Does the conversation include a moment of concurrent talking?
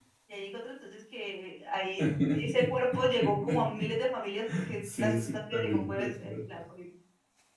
Yes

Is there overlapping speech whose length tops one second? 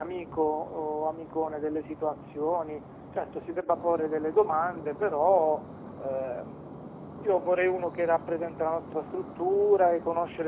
No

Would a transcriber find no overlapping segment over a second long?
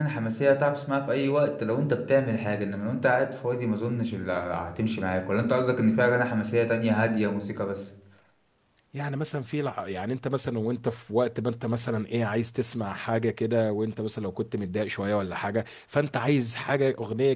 Yes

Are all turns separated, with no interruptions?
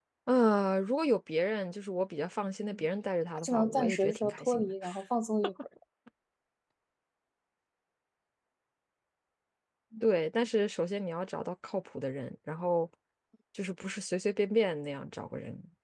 No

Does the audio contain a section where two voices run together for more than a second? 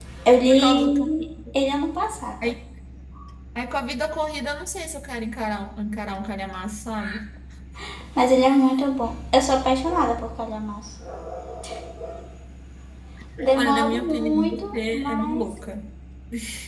Yes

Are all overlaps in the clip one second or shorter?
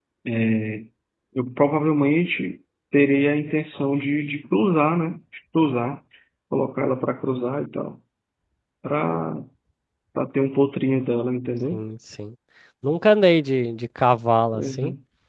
Yes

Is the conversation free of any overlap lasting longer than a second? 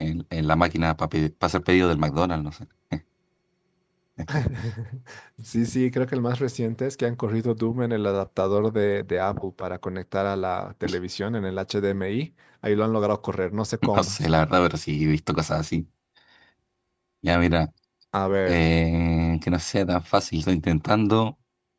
Yes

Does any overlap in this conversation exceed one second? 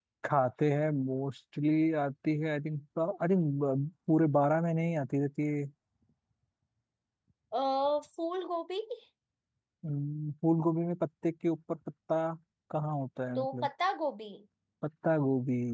No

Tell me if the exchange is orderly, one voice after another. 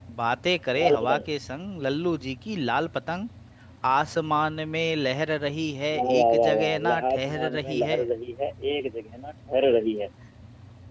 No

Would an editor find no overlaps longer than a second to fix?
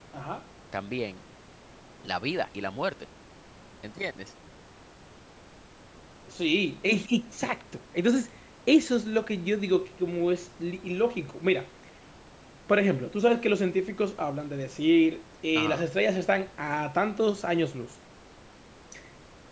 Yes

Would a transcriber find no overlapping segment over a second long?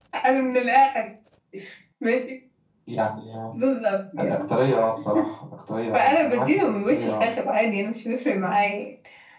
No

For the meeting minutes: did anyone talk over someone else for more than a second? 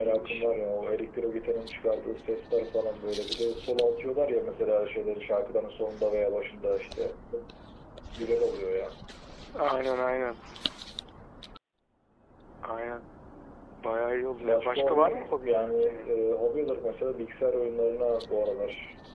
Yes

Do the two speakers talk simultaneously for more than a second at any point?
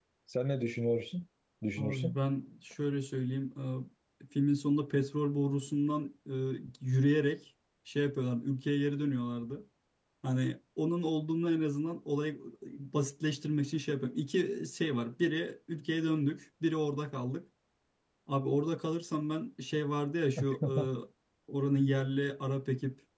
No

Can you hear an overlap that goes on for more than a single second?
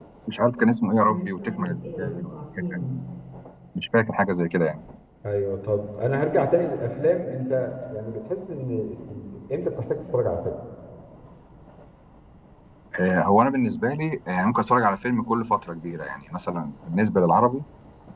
Yes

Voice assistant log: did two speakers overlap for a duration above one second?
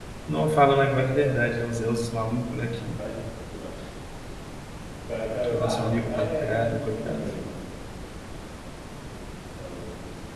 Yes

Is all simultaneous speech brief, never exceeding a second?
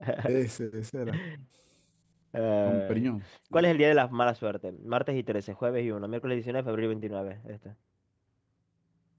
Yes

